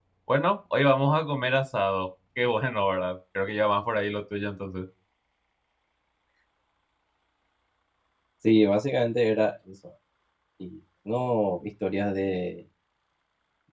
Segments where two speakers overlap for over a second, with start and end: none

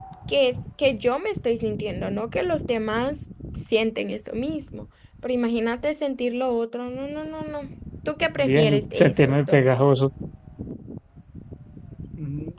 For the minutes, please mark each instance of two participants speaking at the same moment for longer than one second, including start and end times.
8.4-9.6

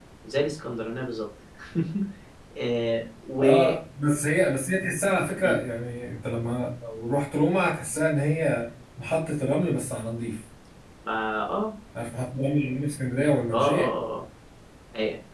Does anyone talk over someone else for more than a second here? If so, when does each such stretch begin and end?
none

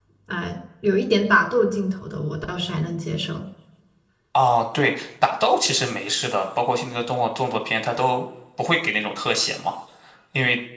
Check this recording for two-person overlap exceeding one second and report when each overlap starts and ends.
none

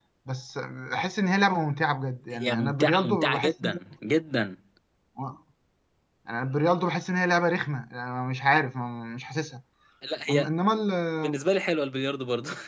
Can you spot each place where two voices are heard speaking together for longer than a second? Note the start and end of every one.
2.3-3.8

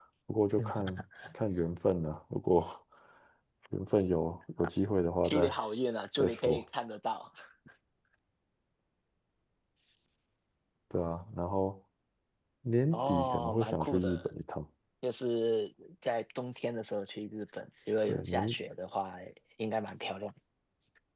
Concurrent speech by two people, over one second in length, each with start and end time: 12.9-14.3

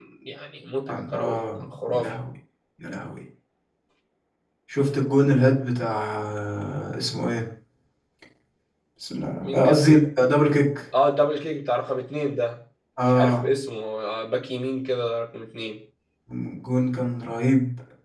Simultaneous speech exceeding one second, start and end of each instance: 0.9-2.1

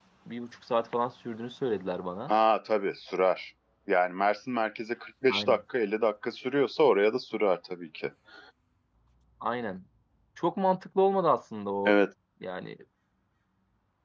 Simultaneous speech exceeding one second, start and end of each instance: none

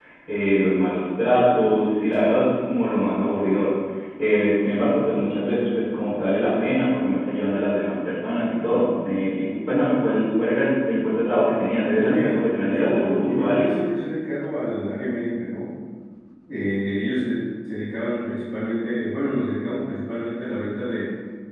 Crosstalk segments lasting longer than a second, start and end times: 12.0-13.7

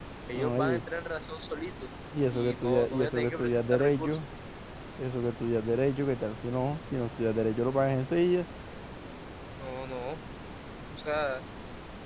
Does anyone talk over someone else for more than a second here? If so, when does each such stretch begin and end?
2.3-4.2

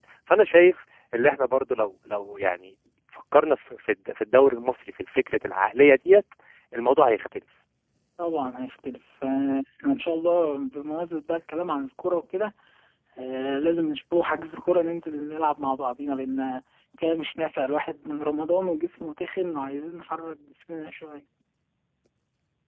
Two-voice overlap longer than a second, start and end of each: none

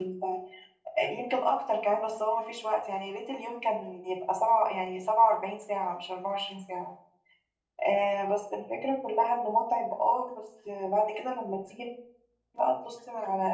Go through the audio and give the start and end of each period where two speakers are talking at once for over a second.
none

